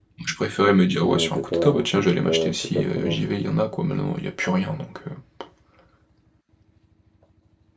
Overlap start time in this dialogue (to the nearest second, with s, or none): 1 s